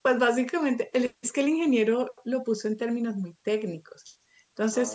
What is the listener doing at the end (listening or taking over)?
listening